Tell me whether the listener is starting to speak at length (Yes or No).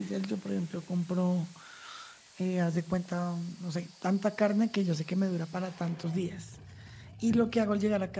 No